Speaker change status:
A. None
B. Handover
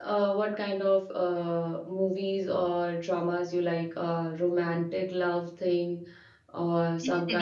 B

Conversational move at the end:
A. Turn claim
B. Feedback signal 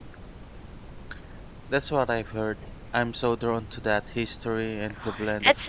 A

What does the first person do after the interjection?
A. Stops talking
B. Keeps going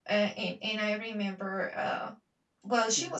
B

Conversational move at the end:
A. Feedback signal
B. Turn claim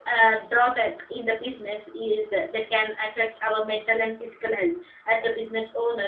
A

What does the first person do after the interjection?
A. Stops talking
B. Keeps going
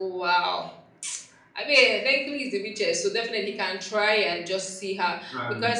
B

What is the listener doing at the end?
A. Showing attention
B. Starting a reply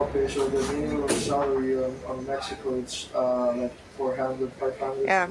B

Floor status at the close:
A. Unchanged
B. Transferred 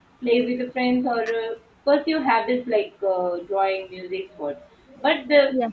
A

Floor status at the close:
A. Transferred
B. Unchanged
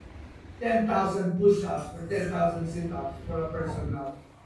B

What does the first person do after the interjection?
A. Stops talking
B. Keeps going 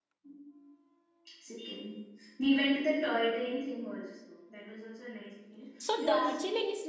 A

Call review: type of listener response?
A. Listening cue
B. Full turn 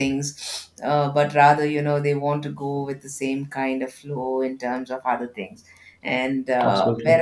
A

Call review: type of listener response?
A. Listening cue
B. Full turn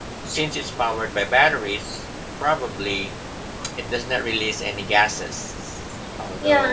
B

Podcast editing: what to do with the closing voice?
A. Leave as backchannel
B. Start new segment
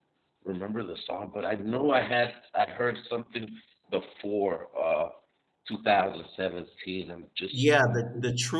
B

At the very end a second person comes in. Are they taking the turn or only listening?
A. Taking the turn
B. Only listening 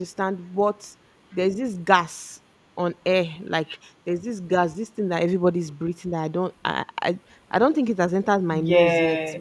B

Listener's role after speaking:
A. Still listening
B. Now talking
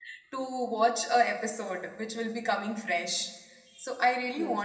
B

